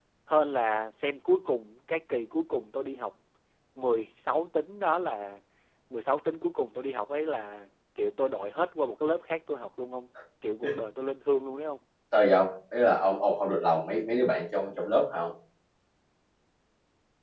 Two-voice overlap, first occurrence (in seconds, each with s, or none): none